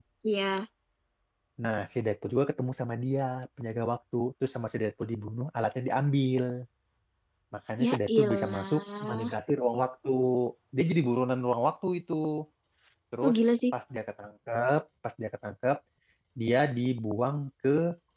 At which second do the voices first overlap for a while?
7.8 s

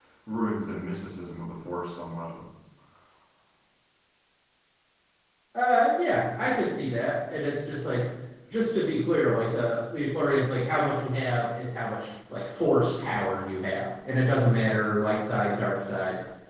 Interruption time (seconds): none

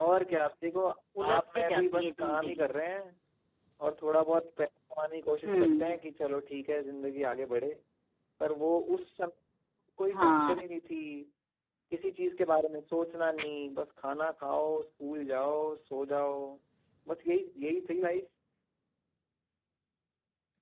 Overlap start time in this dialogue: 1.3 s

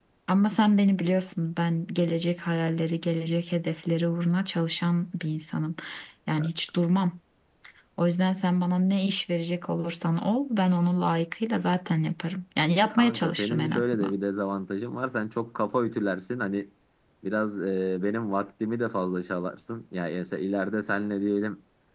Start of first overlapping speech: 12.9 s

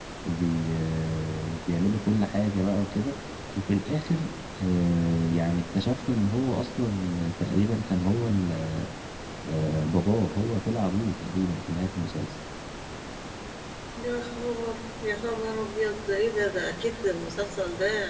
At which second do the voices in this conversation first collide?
none

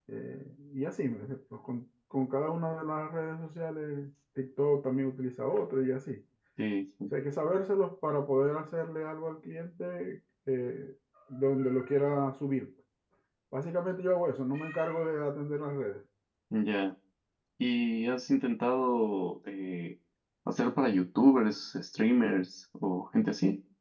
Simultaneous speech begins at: none

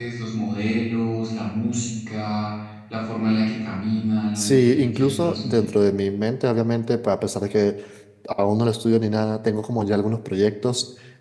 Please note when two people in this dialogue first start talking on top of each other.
4.3 s

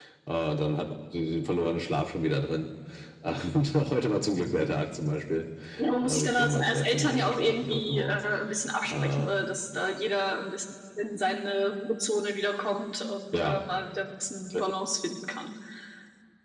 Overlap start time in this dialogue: 6.0 s

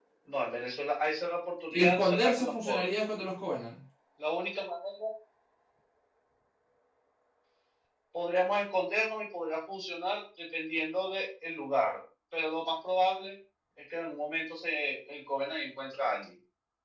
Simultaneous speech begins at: 1.7 s

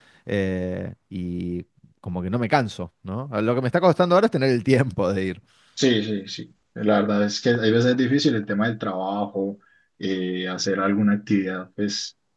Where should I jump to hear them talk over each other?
none

